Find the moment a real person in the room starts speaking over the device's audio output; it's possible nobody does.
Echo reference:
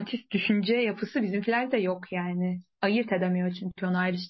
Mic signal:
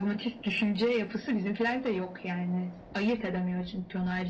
none

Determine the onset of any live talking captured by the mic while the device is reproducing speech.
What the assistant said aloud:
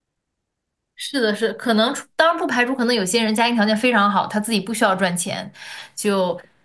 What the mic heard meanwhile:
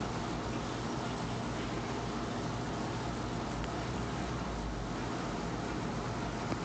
none

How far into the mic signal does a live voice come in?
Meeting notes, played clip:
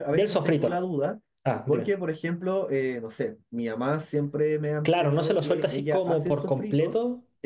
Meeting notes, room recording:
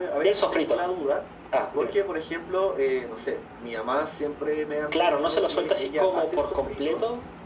none

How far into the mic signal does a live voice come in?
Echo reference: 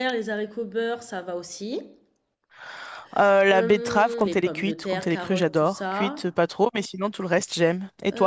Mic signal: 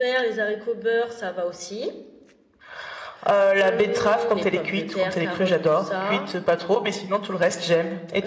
none

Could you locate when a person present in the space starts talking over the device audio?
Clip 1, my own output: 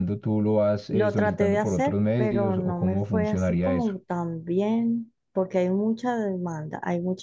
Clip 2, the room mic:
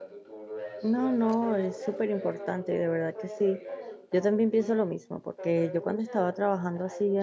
0.8 s

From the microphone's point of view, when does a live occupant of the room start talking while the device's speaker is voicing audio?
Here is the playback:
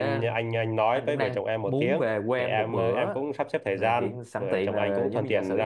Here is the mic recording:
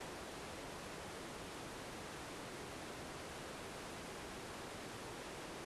none

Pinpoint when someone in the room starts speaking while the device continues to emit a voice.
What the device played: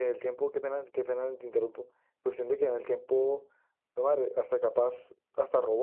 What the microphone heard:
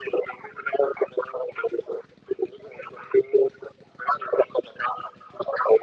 none

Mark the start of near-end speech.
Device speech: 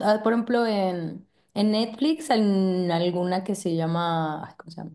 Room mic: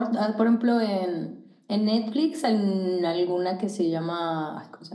none

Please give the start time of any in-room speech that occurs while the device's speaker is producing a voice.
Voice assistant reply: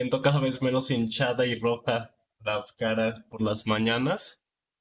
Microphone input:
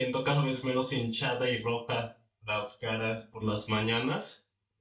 none

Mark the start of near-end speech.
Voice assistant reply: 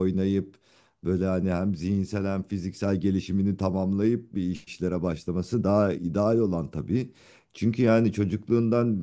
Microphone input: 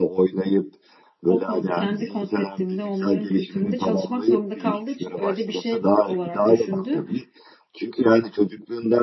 1.2 s

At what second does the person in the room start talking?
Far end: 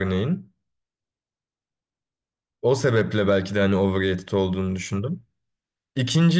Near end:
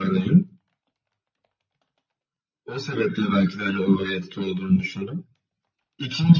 none

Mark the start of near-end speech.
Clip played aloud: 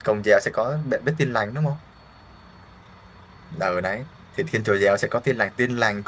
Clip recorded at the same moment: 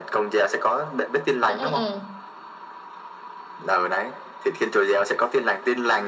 1.4 s

